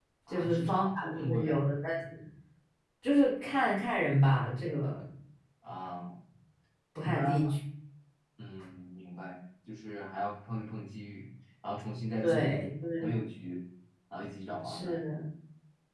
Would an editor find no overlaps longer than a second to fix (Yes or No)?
No